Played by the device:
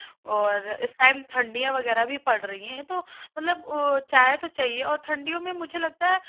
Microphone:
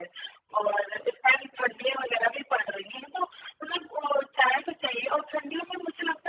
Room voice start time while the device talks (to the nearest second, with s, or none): none